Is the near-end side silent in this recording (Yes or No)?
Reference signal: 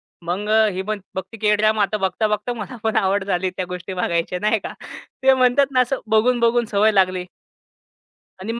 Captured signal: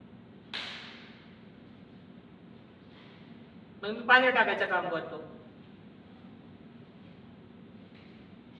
No